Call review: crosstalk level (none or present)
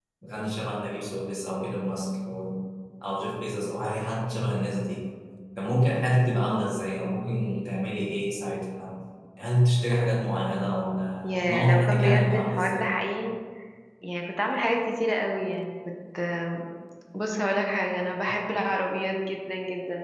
present